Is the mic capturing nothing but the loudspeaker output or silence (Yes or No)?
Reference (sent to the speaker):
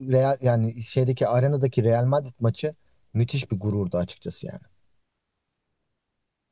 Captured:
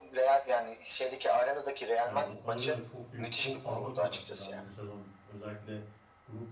No